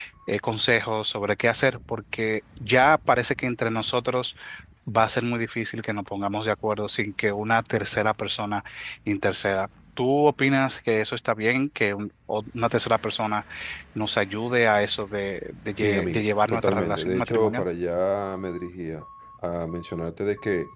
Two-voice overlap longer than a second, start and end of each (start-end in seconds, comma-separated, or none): 15.8-17.6